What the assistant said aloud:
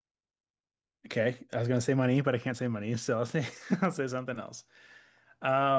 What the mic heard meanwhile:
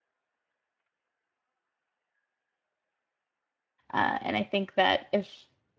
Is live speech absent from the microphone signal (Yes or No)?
No